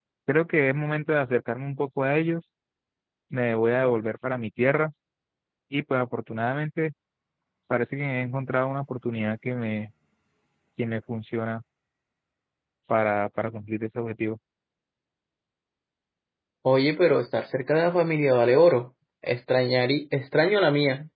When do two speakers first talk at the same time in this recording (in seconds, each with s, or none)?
none